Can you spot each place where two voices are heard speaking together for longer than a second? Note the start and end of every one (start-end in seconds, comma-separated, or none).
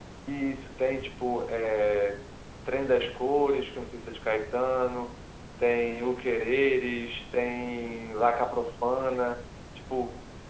none